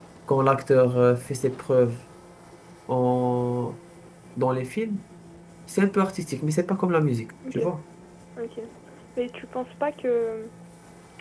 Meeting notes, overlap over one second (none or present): none